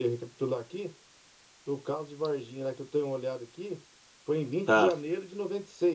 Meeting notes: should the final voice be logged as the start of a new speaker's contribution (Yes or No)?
No